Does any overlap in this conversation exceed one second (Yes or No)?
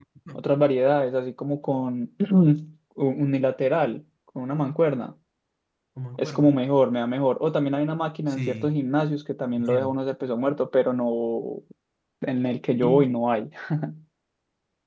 No